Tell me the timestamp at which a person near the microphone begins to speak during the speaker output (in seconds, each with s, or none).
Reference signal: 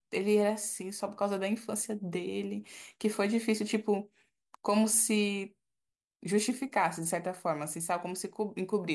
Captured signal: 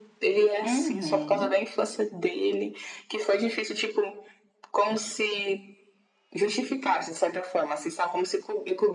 0.6 s